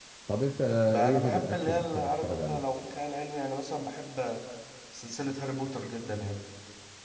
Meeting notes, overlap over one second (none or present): present